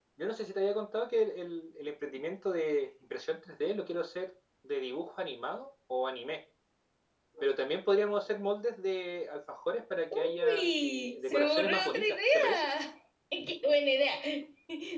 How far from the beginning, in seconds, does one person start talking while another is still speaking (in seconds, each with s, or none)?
10.1 s